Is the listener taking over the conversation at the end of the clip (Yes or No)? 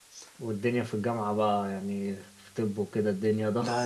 Yes